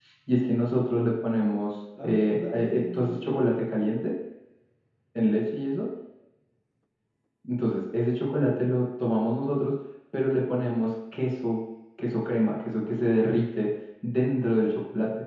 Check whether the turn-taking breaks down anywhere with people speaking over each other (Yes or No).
Yes